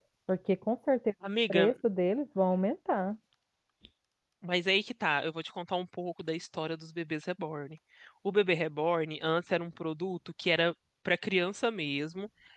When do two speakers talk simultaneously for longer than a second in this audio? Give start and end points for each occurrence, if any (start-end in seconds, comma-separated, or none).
none